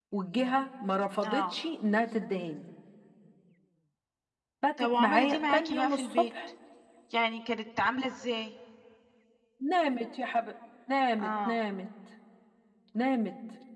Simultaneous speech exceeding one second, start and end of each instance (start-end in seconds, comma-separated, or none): 4.8-6.3